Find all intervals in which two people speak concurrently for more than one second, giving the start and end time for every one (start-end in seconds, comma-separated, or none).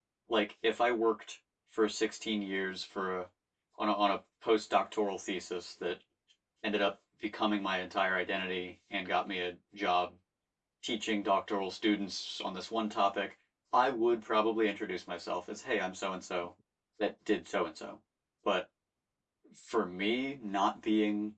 none